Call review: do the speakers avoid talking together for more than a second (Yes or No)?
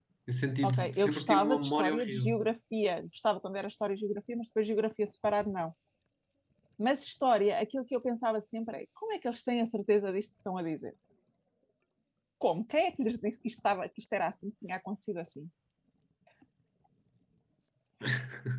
No